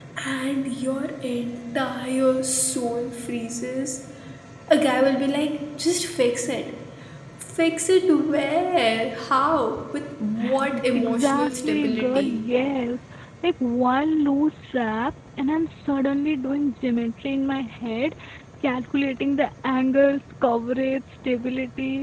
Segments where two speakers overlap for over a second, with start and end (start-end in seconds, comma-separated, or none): 11.0-12.3